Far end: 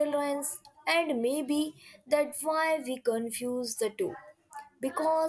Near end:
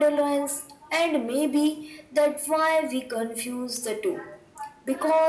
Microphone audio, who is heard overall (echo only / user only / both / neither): echo only